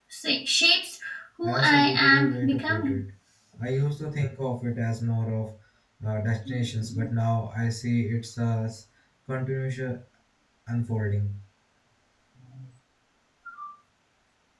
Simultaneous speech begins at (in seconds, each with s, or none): 1.4 s